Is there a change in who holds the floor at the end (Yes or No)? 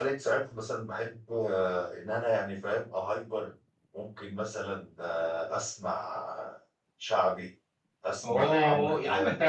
Yes